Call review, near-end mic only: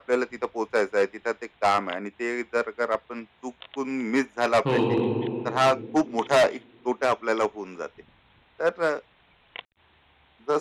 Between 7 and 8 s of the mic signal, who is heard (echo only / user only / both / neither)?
echo only